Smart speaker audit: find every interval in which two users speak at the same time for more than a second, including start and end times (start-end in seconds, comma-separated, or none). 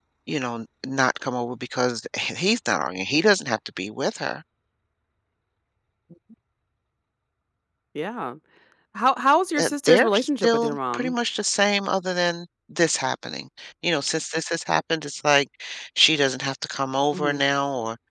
9.6-11.1